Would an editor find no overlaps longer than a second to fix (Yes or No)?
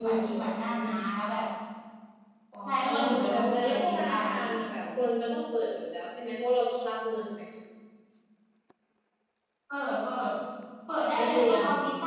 No